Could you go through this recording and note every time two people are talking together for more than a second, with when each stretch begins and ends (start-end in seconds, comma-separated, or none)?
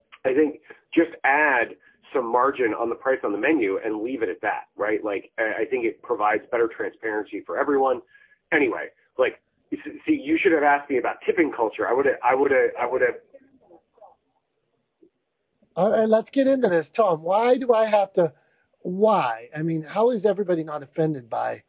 none